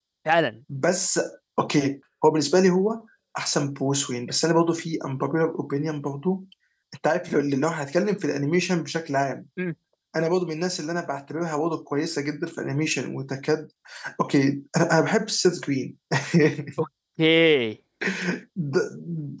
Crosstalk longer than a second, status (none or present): none